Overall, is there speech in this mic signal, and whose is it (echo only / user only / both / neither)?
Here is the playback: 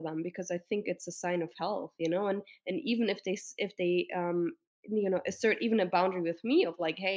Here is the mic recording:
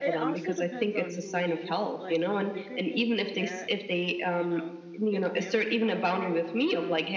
both